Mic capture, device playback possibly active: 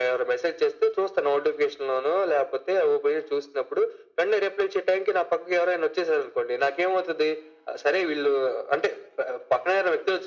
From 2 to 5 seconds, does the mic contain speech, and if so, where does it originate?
echo only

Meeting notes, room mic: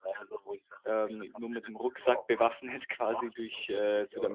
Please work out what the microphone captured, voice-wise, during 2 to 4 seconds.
both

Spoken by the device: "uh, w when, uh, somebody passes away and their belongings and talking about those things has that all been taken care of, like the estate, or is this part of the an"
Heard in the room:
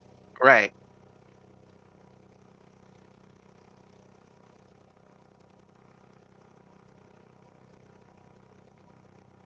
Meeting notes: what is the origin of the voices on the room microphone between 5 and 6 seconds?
neither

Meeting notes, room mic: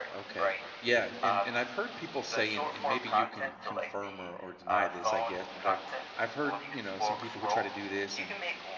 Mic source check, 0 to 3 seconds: both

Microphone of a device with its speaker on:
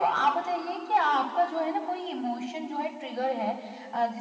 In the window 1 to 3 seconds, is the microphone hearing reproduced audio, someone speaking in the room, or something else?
echo only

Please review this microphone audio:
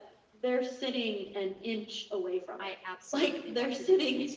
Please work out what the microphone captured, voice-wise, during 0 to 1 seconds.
echo only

